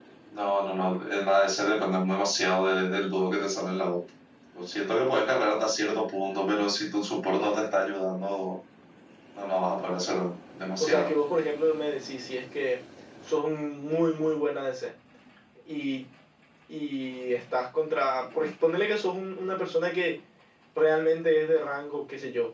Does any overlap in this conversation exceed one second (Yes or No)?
No